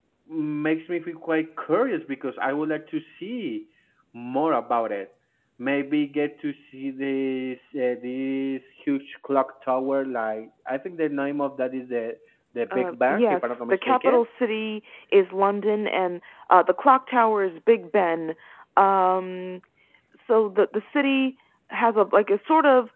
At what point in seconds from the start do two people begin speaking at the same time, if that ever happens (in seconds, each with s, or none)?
12.7 s